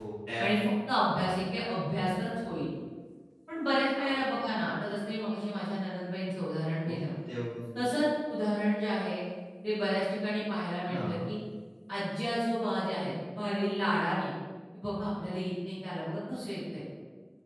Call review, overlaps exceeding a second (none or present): none